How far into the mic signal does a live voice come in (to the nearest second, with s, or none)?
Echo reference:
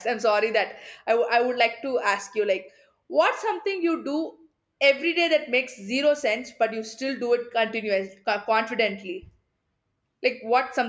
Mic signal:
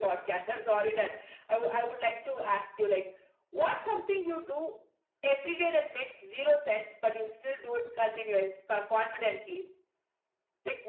none